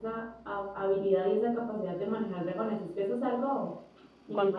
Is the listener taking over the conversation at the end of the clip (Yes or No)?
Yes